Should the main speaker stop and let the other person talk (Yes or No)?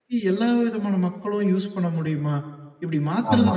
No